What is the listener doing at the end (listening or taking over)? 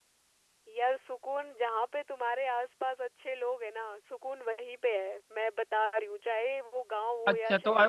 taking over